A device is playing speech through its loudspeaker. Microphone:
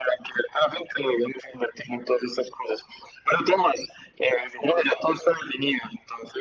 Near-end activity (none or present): none